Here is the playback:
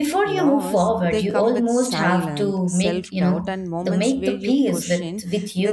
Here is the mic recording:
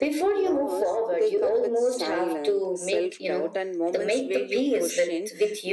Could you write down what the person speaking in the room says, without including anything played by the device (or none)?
none